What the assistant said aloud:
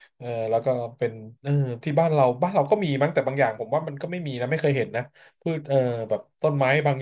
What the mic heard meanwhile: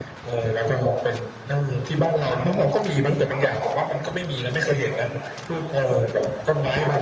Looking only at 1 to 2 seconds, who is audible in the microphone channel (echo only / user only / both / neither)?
echo only